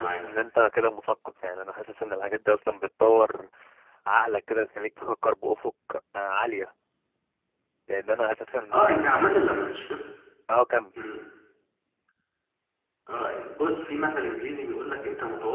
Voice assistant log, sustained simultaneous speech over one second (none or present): none